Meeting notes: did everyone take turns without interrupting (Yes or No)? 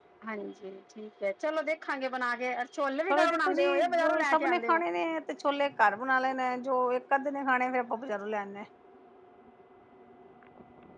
No